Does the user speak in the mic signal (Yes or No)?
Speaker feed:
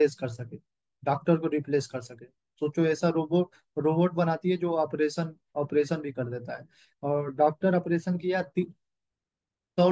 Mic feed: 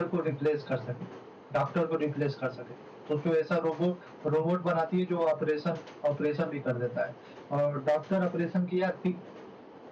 No